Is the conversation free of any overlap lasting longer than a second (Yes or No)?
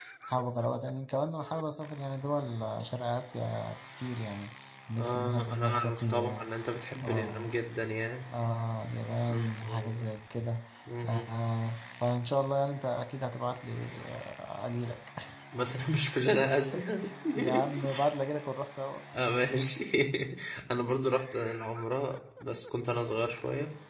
No